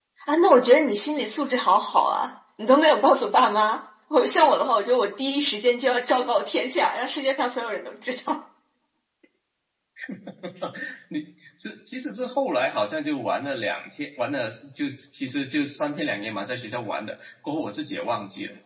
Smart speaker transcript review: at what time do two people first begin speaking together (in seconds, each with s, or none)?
none